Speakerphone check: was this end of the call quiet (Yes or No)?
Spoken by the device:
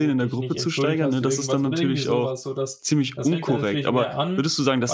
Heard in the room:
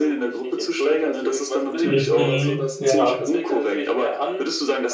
No